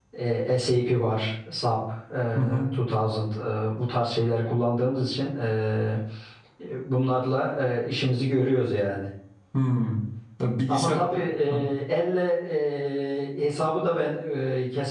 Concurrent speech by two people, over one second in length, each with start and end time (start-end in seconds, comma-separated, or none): none